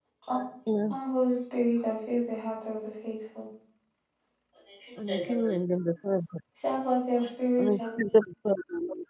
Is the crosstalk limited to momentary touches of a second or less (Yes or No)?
Yes